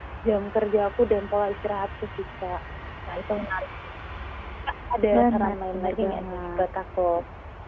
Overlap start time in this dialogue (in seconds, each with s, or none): 5.1 s